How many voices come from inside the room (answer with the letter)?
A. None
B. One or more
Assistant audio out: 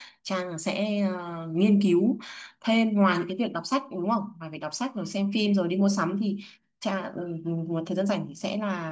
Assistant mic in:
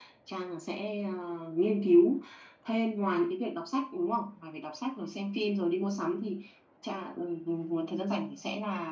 A